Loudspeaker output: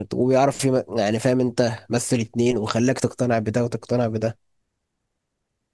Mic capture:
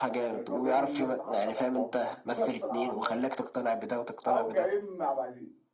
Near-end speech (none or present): present